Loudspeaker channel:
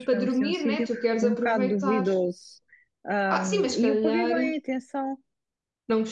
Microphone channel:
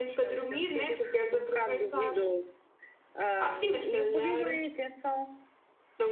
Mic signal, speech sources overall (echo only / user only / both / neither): echo only